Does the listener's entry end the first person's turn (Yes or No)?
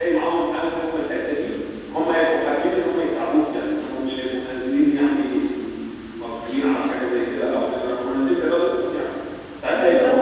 No